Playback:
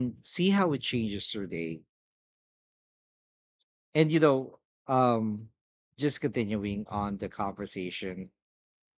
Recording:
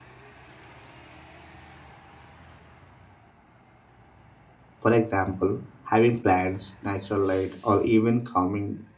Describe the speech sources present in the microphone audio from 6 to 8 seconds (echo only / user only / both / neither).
user only